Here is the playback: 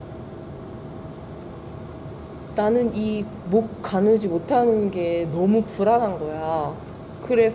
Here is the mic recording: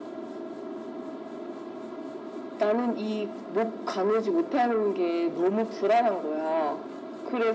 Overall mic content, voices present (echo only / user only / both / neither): echo only